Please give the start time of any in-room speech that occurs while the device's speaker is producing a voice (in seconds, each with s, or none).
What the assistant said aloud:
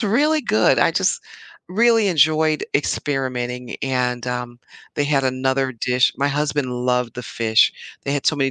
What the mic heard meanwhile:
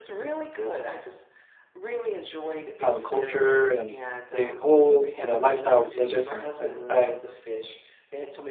2.8 s